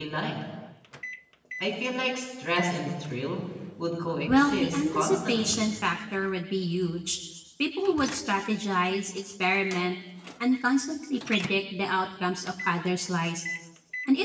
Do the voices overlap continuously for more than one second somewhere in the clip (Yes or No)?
Yes